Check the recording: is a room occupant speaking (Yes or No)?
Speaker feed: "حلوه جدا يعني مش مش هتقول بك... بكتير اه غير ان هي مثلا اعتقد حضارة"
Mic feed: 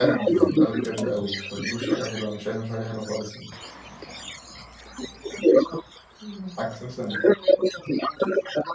Yes